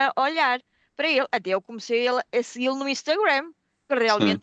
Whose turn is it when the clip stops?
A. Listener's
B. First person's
B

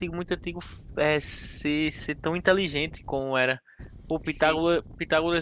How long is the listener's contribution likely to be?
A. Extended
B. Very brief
B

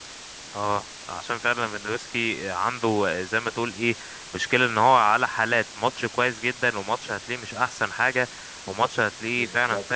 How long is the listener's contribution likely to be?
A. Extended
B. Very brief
B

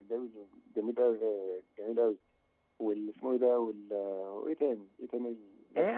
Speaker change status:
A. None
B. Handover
B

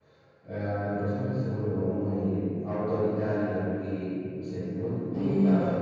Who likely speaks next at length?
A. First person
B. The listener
B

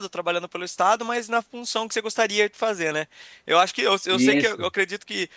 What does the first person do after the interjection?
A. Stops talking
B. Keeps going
B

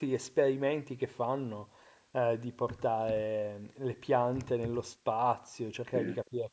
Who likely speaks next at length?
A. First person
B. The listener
A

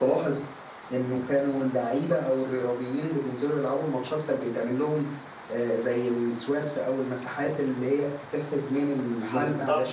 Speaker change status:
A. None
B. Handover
B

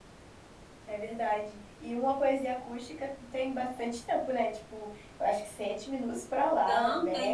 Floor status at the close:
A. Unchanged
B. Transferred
B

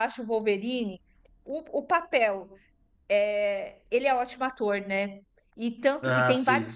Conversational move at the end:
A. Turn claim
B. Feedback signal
B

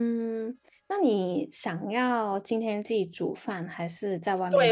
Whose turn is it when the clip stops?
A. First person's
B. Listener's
B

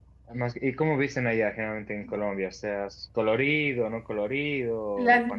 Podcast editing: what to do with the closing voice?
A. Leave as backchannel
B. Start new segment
B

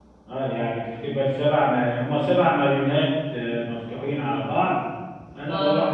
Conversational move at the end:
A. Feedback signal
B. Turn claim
A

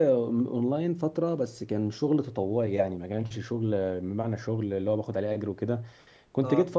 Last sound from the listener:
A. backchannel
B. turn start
A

